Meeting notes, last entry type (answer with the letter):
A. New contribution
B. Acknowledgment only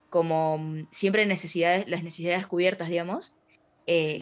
B